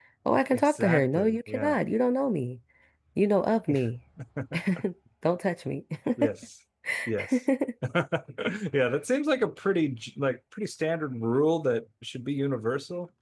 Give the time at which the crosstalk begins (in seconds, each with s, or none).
0.5 s